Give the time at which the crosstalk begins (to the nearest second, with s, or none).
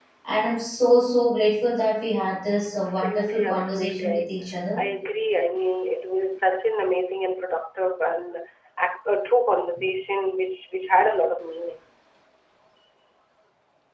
3 s